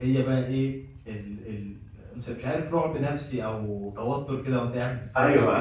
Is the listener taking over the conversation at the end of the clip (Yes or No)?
Yes